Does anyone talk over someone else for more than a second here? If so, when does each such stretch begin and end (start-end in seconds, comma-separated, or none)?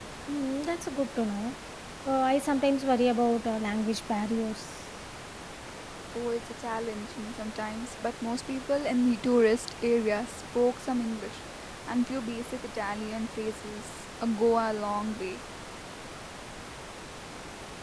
none